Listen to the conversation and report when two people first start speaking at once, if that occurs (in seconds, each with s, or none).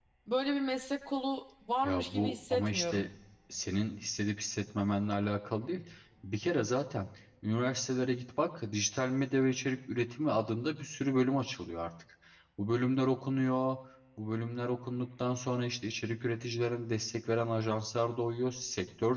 1.8 s